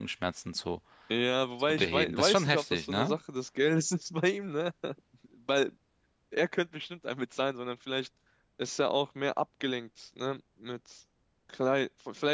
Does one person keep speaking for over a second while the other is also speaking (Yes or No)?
Yes